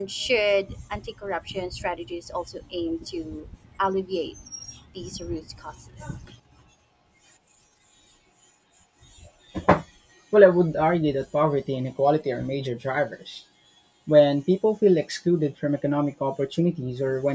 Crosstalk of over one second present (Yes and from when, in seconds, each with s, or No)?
No